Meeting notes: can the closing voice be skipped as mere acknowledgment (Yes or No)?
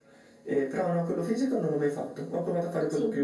Yes